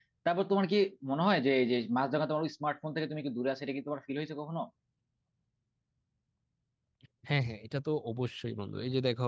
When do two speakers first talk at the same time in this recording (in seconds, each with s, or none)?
none